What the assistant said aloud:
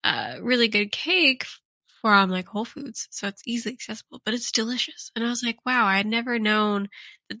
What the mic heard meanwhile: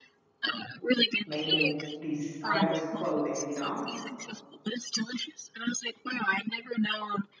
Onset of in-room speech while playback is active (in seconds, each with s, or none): 1.3 s